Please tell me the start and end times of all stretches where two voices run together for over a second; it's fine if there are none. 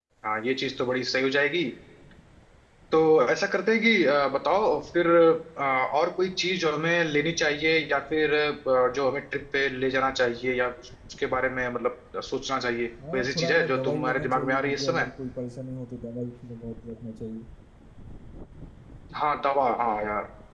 13.1-15.1

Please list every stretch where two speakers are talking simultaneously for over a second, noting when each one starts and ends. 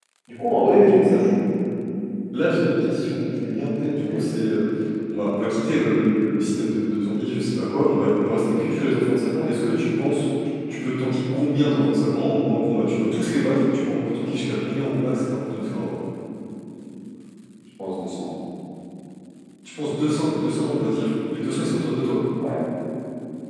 none

